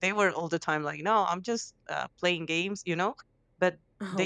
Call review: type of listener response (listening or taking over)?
listening